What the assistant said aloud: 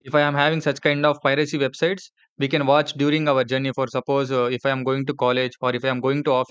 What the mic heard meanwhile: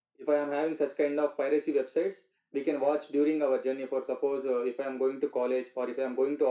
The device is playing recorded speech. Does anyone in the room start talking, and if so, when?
none

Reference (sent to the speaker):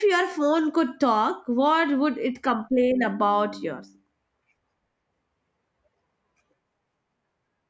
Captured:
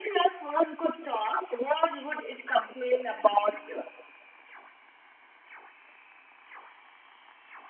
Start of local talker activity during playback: none

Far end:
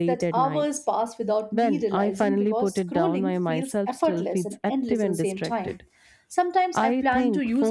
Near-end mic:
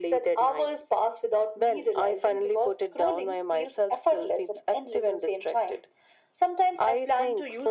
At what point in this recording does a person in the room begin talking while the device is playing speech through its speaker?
none

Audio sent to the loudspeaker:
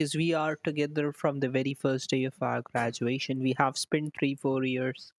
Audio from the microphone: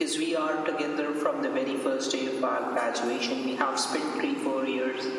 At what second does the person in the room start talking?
none

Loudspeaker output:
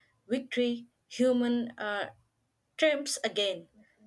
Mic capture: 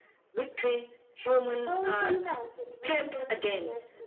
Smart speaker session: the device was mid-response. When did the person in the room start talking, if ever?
1.6 s

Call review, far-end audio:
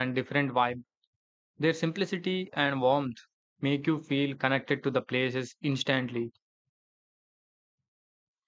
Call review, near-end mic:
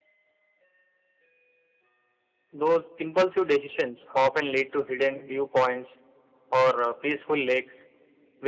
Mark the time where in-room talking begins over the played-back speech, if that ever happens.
2.5 s

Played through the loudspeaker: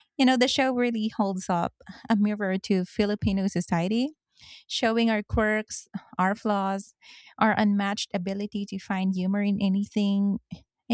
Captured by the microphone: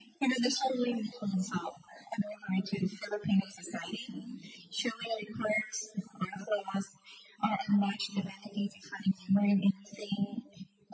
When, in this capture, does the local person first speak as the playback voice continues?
none

